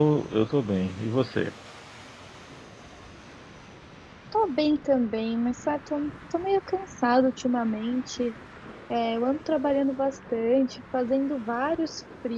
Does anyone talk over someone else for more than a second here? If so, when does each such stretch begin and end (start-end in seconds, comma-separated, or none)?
none